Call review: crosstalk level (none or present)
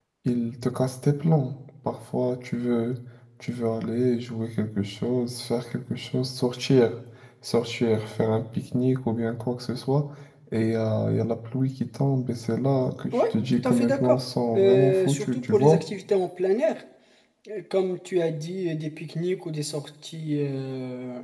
present